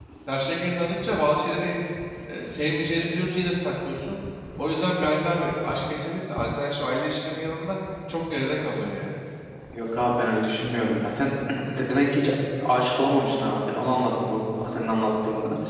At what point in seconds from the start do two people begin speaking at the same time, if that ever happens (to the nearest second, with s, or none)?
none